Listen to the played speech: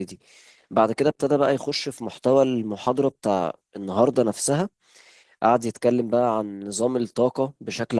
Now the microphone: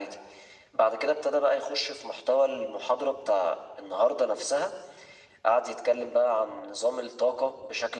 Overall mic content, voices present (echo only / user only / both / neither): echo only